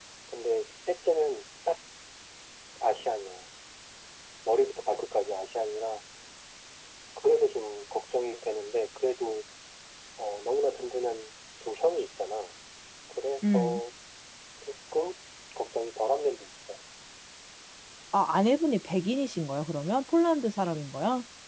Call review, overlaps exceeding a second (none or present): none